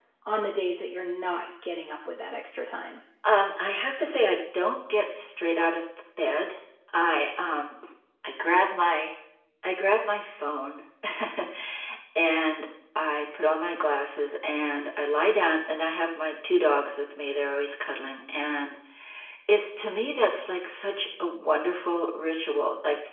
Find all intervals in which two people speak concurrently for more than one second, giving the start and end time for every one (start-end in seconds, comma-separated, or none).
none